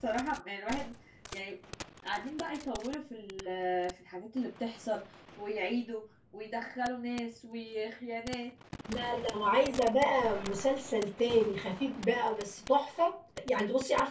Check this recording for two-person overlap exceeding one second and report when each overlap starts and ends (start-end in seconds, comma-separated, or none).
none